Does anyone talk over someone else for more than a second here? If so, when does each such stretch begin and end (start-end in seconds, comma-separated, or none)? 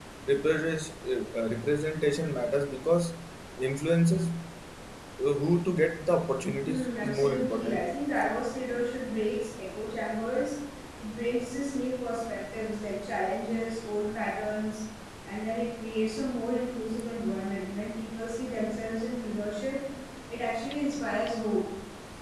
6.6-7.9